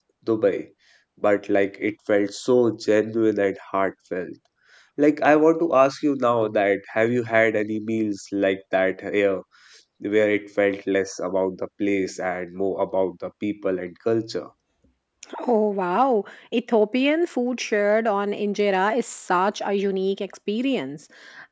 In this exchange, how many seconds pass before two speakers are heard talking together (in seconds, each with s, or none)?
none